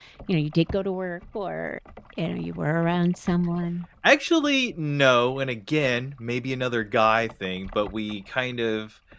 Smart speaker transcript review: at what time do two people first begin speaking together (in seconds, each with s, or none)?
none